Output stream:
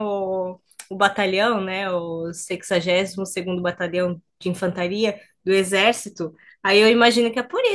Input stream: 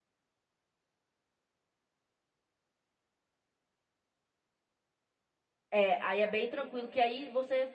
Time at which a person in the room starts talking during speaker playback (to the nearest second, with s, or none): 6 s